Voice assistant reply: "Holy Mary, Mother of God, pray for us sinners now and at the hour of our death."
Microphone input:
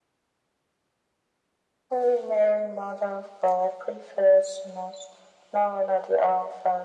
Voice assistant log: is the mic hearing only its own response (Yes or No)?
Yes